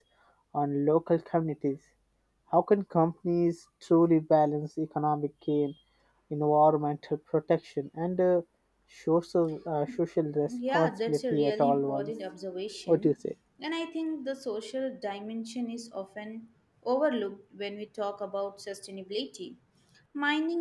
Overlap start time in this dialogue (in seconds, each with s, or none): 10.7 s